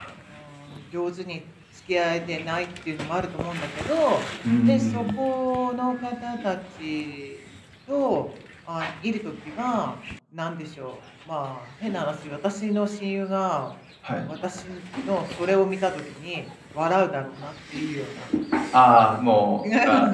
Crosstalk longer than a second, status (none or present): none